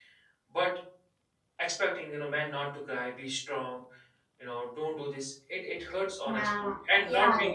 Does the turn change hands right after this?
Yes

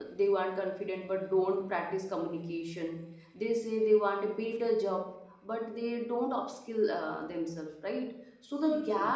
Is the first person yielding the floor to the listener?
No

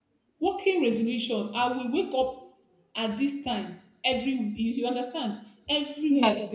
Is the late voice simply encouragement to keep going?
Yes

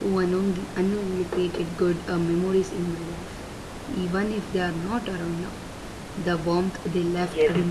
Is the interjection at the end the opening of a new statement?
Yes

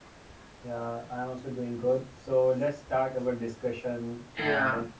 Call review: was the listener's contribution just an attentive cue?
Yes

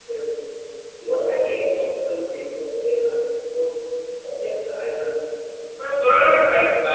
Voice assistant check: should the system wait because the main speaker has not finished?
No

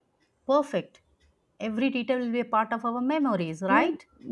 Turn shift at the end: Yes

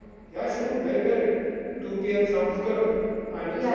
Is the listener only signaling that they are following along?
No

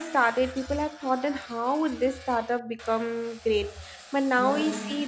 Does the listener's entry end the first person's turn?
No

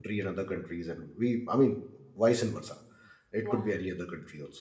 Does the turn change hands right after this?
No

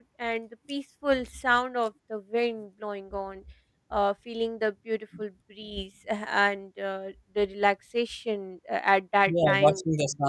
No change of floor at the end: No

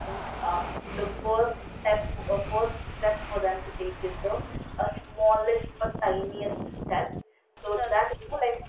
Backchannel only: Yes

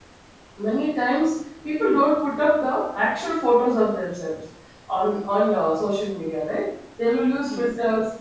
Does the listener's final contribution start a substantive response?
No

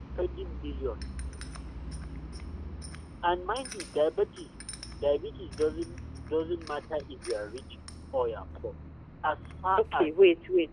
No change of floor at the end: No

